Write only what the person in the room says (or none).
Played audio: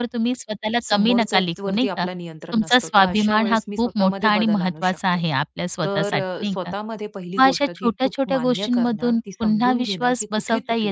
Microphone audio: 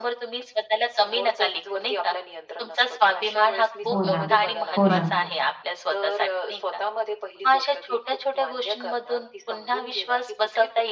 हो ना, हो ना,